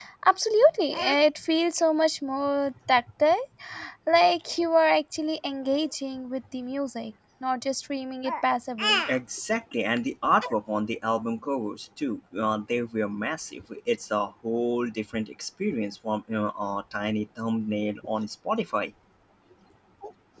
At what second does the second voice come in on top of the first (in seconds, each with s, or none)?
none